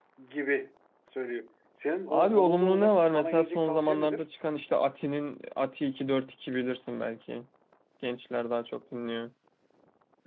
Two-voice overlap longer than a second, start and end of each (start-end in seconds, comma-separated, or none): 2.1-4.2